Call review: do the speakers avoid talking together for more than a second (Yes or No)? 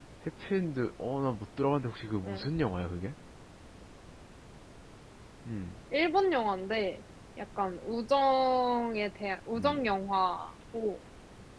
Yes